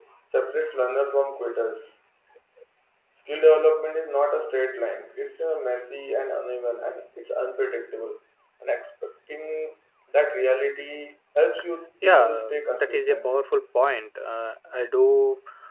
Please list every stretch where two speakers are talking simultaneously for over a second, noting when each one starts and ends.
12.0-13.3

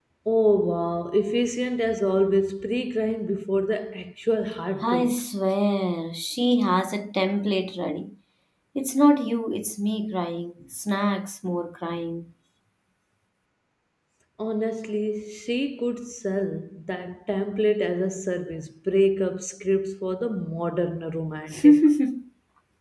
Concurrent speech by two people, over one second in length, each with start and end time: none

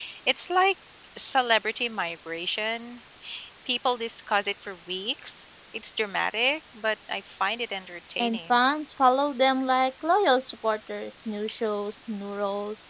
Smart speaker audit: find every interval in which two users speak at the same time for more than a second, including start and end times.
none

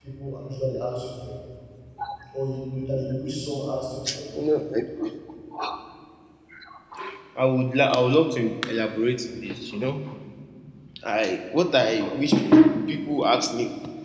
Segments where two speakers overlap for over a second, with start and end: none

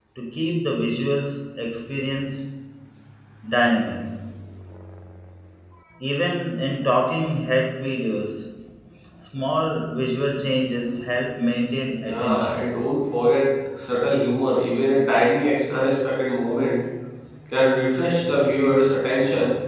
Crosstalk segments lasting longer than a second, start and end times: none

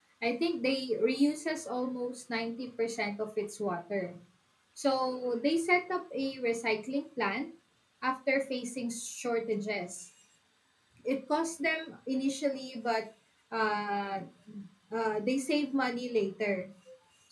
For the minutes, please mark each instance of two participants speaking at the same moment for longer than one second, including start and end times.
none

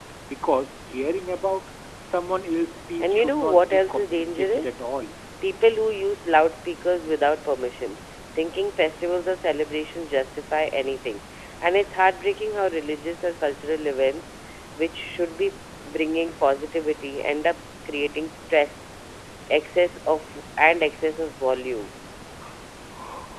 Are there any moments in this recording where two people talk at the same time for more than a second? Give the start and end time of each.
3.0-4.8

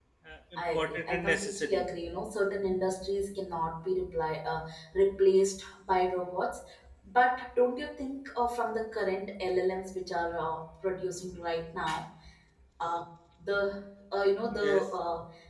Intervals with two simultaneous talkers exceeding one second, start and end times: 0.6-1.8

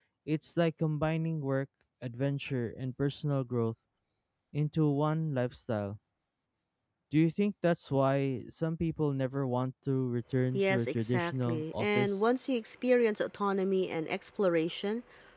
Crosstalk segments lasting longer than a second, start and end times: 10.5-12.2

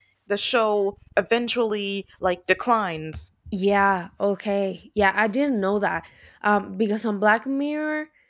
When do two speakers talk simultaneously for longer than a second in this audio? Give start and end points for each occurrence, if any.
none

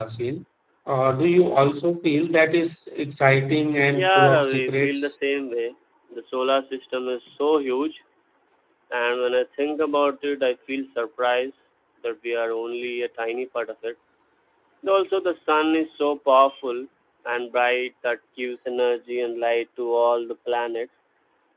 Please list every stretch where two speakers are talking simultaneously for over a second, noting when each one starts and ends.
3.9-5.1

